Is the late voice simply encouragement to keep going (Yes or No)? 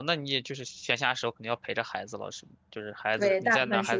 No